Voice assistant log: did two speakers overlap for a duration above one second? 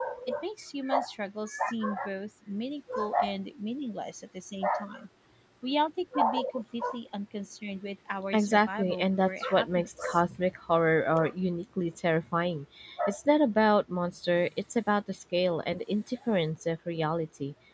Yes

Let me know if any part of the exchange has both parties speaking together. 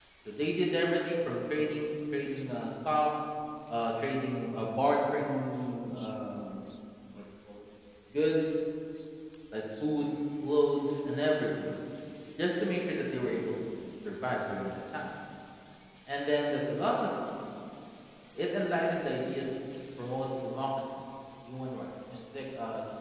No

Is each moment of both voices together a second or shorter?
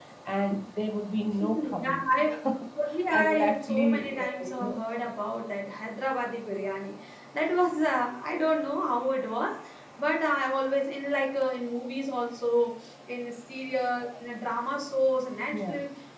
No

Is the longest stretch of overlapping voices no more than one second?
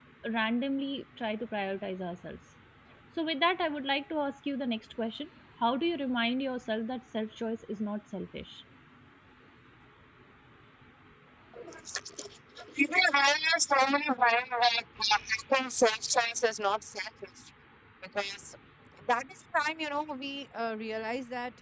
Yes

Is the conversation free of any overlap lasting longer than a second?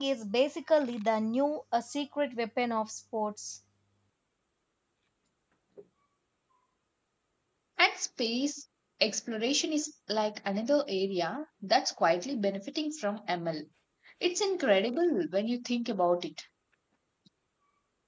Yes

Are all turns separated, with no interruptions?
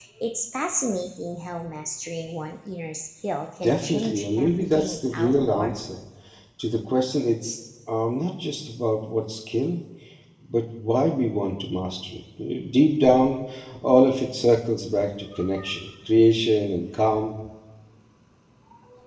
No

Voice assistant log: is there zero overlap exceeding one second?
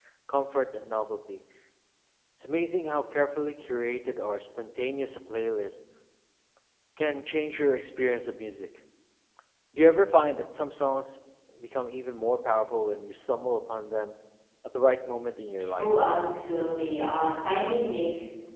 Yes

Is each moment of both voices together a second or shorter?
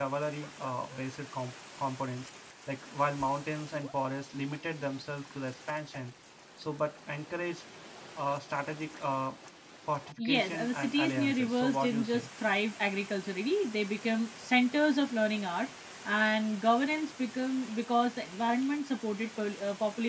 No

